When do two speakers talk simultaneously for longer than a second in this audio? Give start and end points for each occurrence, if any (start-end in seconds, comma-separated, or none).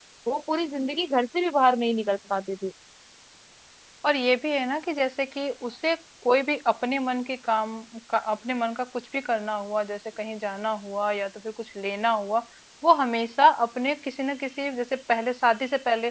none